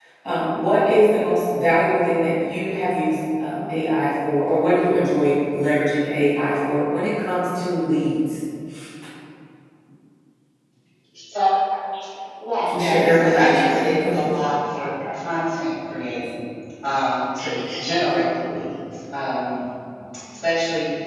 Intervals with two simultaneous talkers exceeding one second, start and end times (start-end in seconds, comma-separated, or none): 12.7-14.3